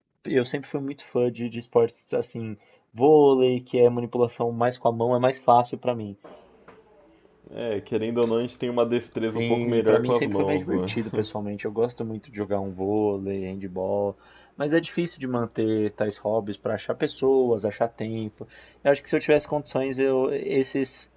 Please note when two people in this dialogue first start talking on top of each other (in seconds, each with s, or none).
9.4 s